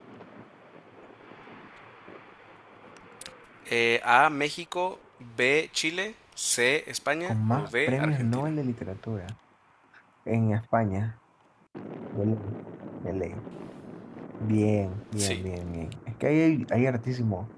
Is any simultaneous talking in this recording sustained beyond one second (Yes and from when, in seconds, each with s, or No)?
Yes, from 7.3 s